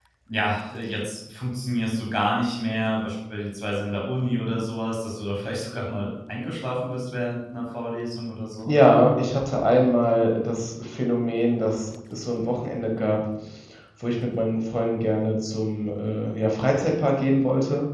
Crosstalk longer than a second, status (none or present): none